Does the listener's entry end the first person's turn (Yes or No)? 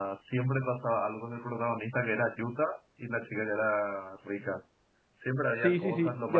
Yes